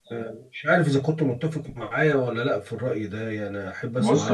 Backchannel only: No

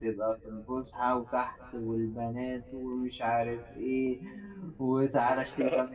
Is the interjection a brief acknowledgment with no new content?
Yes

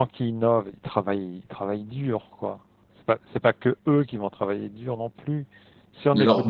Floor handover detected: Yes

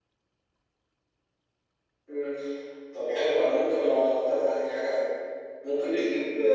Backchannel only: Yes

